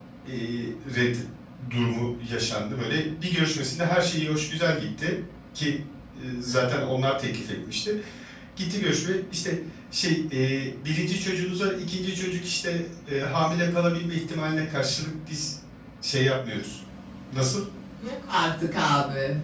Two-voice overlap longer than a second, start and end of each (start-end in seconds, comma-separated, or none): none